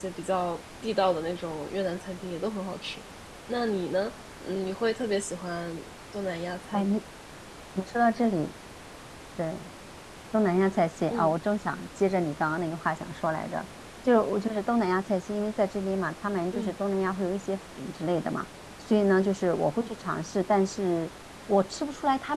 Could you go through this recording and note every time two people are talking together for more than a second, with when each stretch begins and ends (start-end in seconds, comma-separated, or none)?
none